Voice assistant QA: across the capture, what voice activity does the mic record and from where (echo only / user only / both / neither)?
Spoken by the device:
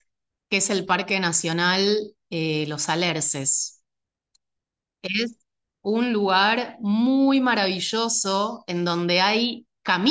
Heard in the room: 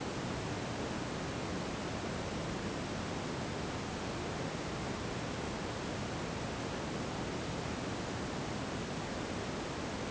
neither